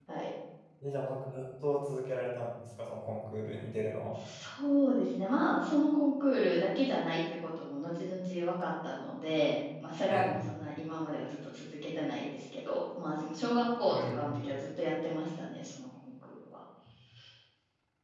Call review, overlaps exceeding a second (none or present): none